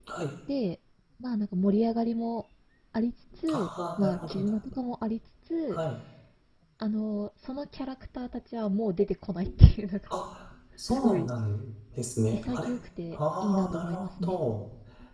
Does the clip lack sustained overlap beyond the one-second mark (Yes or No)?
No